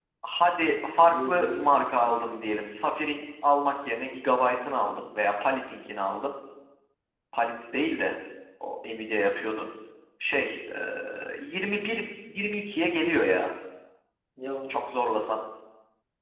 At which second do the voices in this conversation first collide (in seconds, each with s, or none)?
1.1 s